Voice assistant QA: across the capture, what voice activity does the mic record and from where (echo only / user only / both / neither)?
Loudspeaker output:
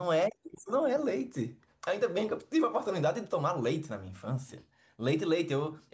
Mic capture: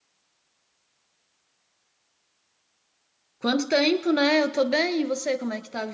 user only